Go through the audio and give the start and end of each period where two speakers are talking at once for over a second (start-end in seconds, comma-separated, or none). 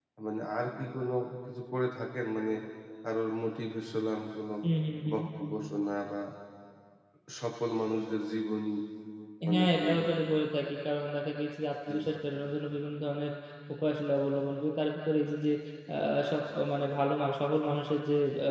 none